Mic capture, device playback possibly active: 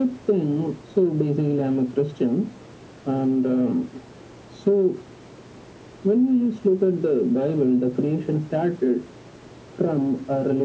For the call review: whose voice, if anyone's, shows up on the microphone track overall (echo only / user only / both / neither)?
echo only